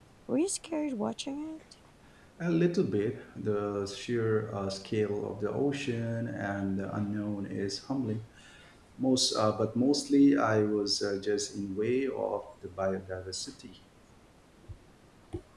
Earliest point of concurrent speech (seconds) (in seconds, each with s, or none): none